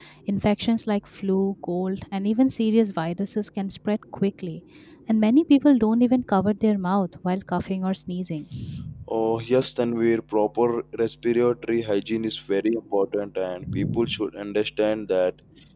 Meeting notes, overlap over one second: none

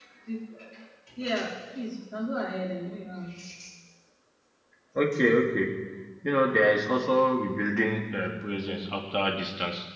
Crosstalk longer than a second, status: none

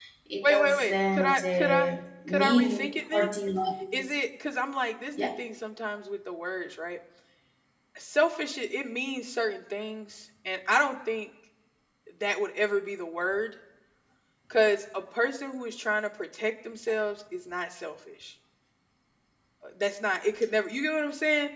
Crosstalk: present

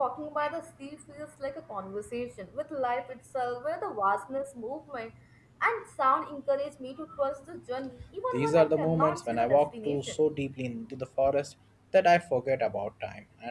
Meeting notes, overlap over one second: present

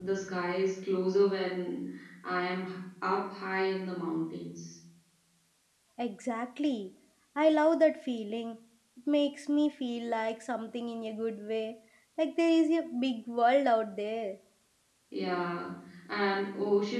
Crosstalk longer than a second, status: none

